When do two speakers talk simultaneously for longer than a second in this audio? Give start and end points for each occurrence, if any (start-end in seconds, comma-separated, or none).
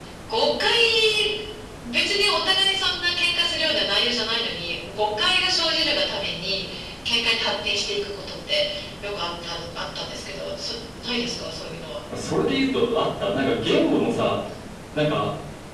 none